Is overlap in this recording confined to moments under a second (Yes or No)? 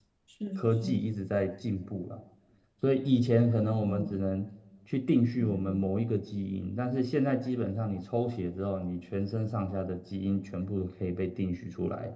Yes